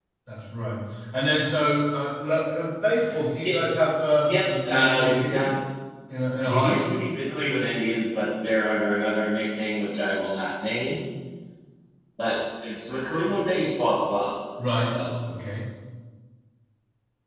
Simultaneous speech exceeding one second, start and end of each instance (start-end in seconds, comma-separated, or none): 4.2-5.4